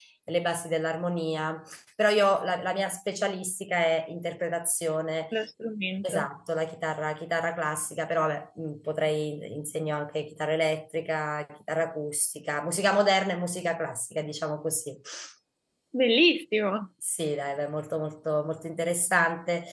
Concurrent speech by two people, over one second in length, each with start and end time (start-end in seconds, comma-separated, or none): none